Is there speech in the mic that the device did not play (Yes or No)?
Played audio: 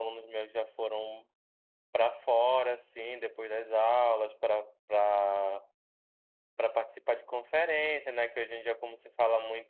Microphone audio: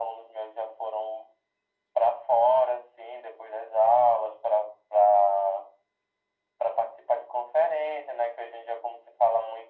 No